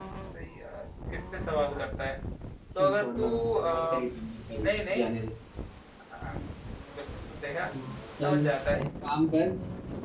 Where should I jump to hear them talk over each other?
2.8 s

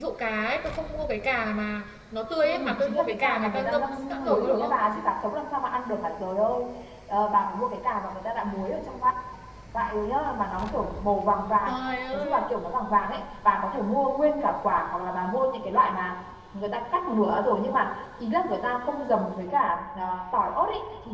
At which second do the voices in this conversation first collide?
2.4 s

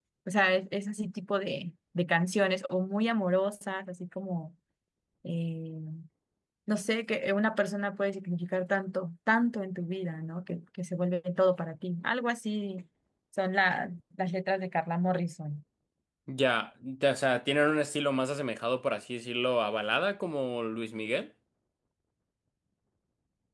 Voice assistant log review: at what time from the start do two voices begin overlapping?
none

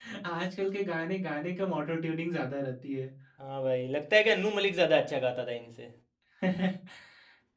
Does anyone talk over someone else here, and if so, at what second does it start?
none

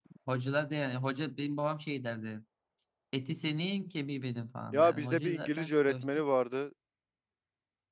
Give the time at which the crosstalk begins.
4.7 s

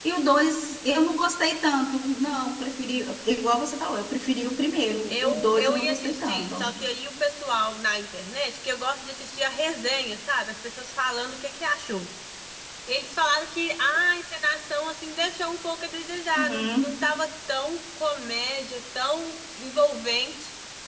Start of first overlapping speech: 5.1 s

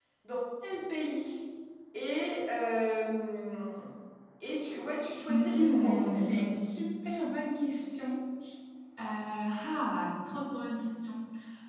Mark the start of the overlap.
5.3 s

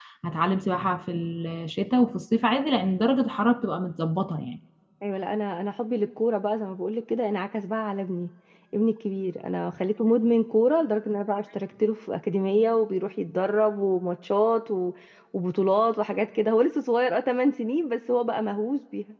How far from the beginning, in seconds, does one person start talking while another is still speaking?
none

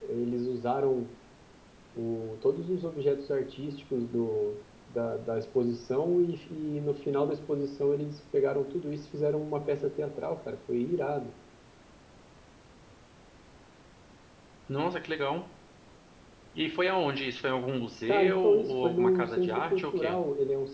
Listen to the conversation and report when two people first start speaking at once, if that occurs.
18.1 s

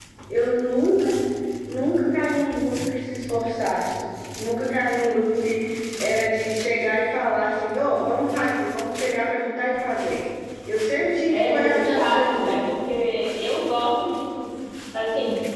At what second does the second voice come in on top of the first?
11.3 s

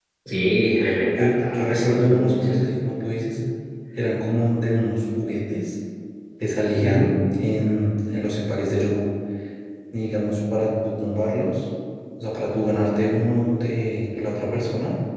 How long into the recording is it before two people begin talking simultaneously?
1.2 s

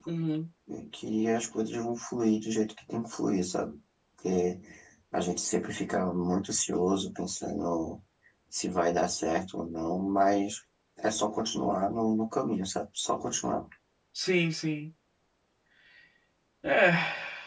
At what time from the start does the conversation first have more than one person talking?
none

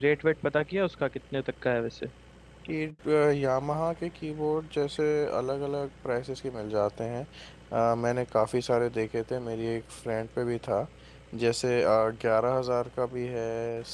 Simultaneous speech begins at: none

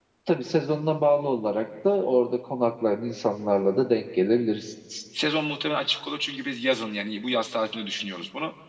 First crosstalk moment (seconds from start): none

